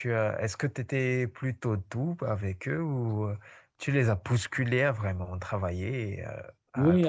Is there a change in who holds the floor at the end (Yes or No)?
Yes